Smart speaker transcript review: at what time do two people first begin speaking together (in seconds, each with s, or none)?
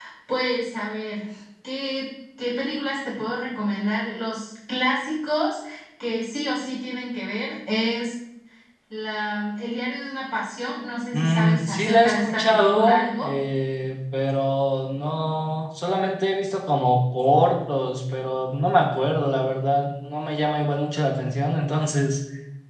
11.1 s